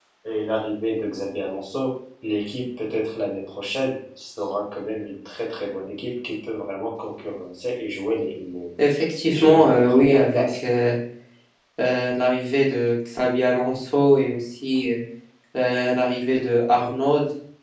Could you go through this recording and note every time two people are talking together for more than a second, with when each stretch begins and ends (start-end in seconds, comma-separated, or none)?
9.3-10.6